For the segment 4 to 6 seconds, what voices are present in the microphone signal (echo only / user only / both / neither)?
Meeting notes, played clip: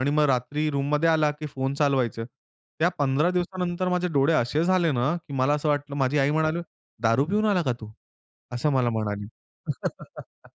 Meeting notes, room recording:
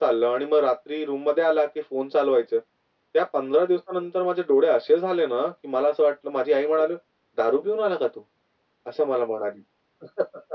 echo only